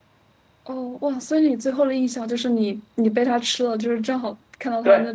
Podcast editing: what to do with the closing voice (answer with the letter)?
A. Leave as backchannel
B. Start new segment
B